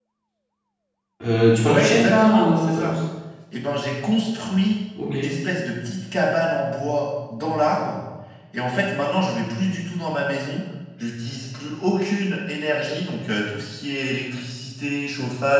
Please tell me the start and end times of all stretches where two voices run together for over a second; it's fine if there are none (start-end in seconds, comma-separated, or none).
1.6-2.9